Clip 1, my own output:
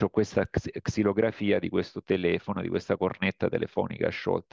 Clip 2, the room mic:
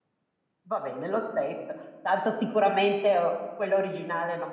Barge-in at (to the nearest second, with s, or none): 1 s